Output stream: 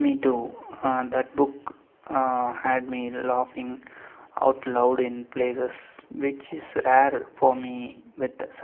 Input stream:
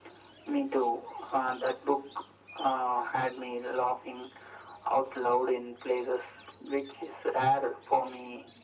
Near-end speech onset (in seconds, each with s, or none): none